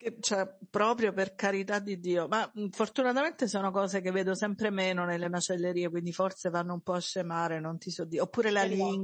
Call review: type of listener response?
listening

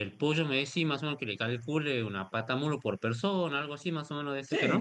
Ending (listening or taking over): taking over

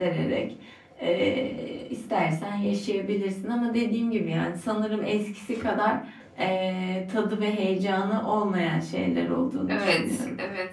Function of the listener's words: taking over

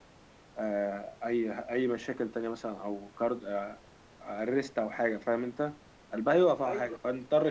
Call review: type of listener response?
listening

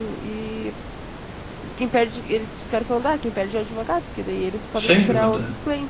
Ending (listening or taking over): listening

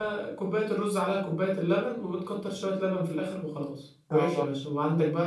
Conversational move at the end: listening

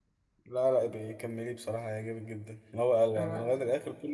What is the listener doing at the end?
listening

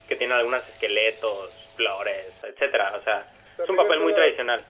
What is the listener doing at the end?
taking over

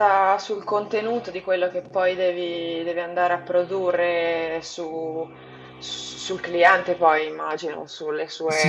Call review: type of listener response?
taking over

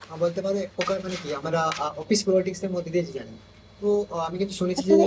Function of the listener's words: listening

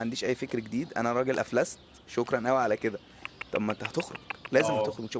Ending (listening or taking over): listening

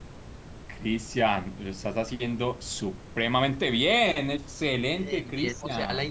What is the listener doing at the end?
taking over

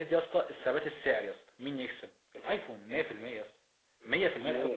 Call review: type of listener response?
taking over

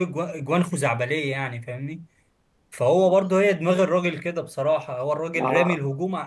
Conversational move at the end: listening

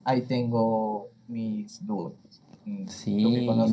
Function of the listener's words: taking over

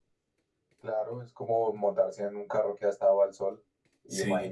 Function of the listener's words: listening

